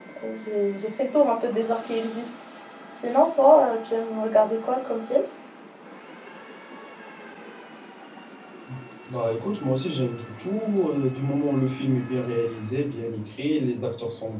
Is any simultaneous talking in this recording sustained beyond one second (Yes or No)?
No